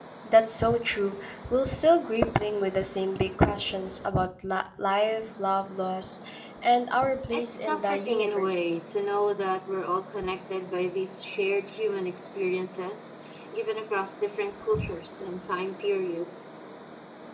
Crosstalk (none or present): present